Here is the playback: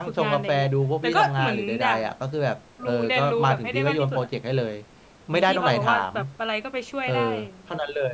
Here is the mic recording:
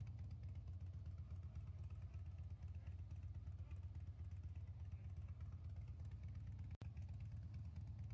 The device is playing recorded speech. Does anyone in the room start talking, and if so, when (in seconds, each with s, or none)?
none